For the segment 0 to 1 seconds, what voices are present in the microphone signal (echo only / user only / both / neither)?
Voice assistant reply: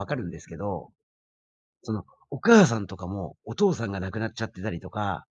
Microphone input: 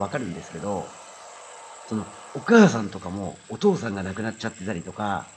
echo only